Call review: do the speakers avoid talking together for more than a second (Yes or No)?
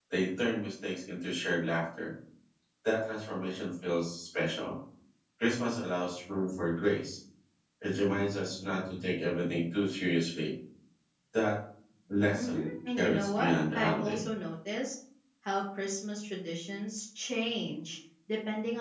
No